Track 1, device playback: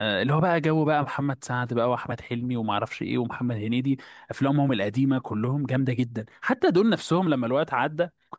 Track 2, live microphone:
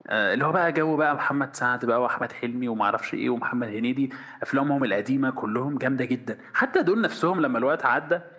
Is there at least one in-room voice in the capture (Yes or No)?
No